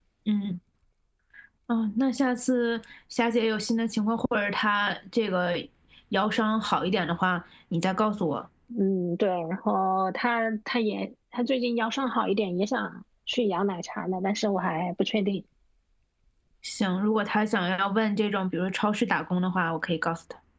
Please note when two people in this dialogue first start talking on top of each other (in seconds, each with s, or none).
none